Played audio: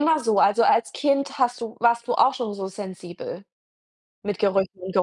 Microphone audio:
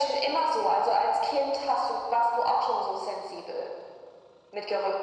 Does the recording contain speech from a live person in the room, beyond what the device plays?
No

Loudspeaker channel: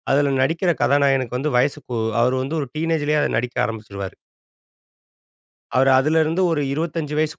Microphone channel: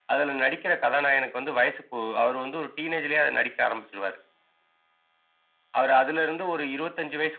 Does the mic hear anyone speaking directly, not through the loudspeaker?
No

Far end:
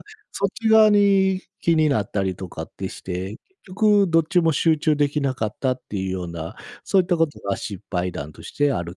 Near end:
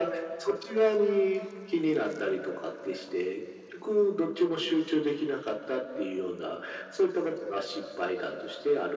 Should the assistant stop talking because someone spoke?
No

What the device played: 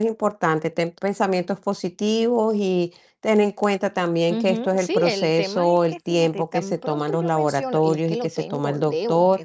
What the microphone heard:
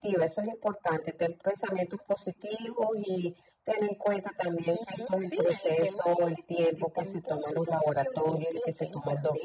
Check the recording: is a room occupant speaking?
No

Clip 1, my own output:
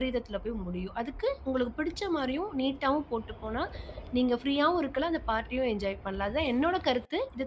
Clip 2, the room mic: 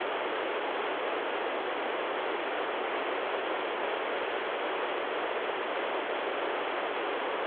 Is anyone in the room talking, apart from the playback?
No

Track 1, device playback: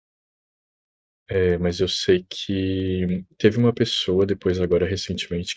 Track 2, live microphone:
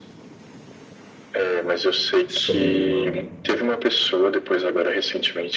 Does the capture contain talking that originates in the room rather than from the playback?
Yes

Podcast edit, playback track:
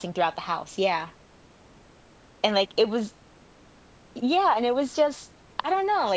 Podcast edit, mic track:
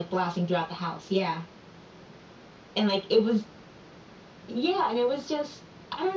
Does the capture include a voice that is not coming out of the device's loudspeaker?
No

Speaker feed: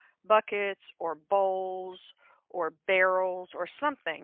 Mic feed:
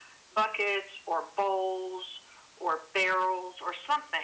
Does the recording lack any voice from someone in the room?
Yes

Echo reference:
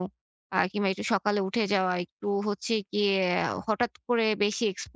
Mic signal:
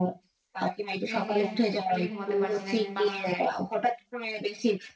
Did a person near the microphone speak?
Yes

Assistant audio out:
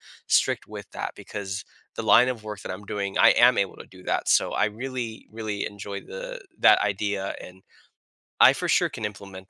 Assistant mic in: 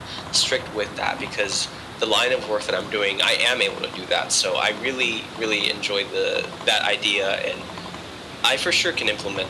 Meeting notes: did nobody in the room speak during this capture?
Yes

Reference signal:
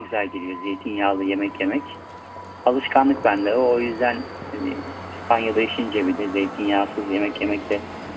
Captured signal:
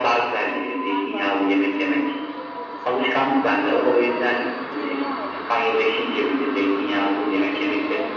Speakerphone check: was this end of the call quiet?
No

